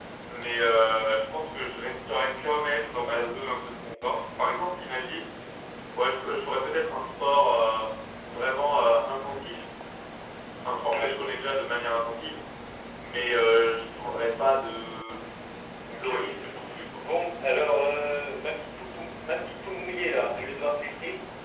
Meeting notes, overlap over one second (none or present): none